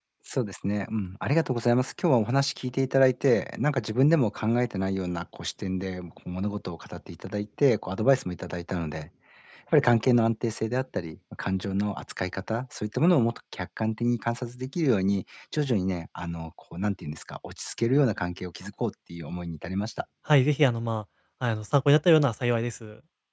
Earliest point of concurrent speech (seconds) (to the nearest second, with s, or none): none